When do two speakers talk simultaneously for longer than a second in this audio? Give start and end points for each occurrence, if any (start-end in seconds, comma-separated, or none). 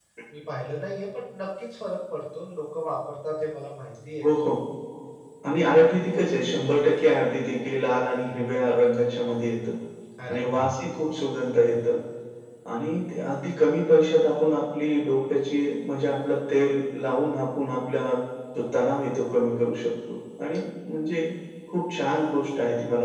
none